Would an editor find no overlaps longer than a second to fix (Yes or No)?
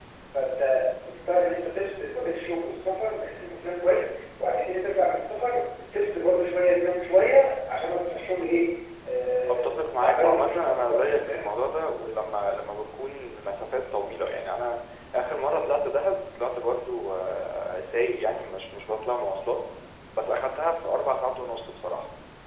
No